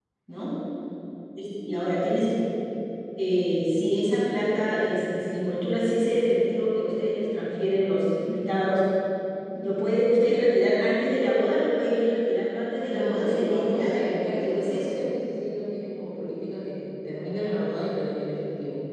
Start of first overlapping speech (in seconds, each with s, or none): 12.9 s